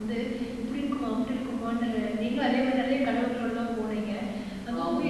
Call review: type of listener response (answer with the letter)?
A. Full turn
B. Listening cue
B